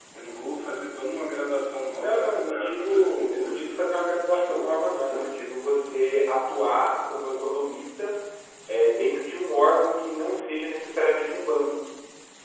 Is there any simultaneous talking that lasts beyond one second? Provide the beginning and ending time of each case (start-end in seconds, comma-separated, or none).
2.0-3.8